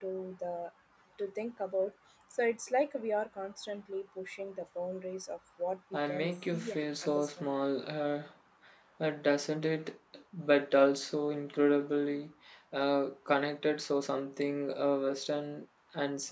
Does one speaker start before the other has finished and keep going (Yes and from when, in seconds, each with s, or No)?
Yes, from 5.9 s